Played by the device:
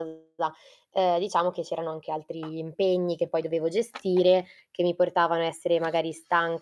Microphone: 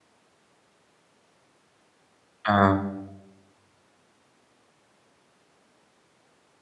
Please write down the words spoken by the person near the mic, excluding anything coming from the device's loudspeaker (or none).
Ah.